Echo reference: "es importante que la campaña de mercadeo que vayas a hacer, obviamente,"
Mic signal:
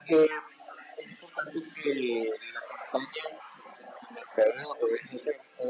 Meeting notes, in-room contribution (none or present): none